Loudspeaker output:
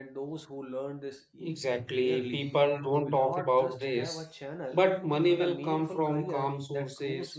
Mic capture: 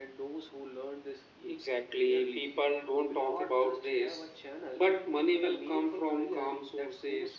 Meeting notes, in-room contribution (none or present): none